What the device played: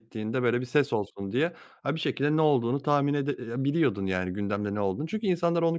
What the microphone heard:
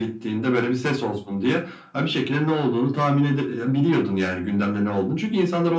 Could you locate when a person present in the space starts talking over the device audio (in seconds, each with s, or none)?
none